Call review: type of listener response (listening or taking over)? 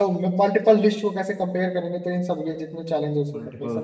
taking over